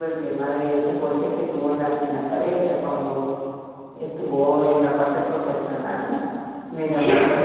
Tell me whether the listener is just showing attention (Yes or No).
Yes